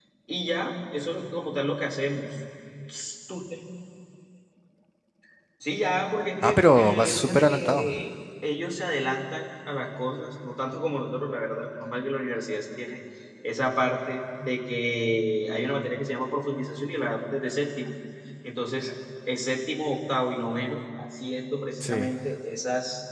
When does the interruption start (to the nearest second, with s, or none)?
6 s